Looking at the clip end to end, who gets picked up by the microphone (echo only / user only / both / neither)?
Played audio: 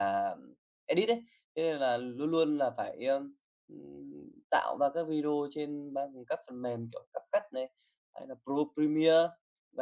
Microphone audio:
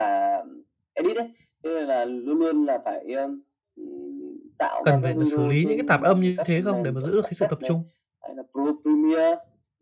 both